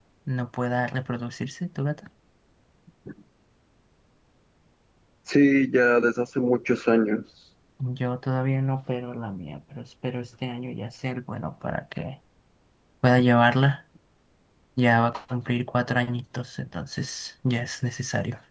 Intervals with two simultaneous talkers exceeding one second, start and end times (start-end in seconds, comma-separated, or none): none